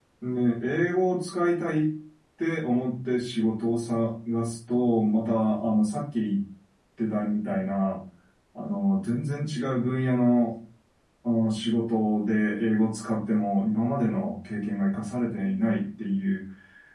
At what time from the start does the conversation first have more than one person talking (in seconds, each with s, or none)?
none